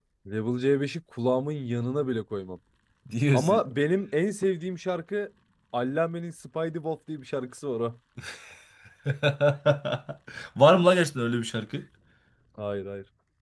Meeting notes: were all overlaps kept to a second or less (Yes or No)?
Yes